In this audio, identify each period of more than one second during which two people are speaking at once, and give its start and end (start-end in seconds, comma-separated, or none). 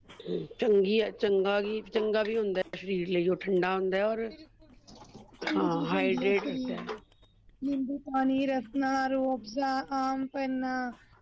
5.5-6.9